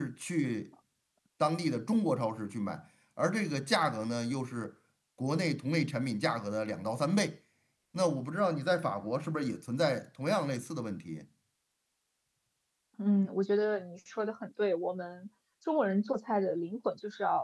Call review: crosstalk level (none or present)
none